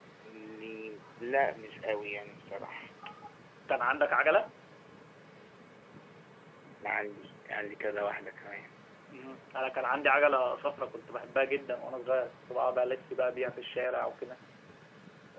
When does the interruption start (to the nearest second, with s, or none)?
none